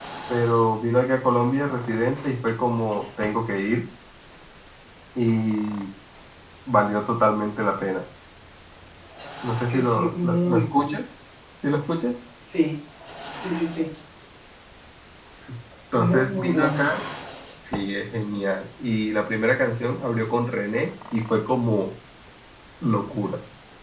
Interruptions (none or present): present